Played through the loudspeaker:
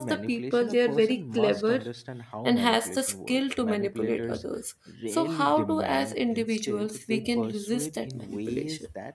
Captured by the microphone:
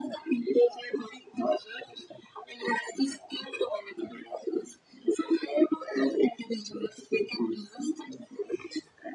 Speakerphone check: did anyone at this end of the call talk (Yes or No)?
No